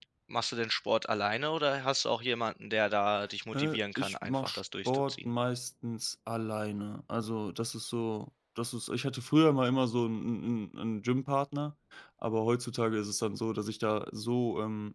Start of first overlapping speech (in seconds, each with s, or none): 3.5 s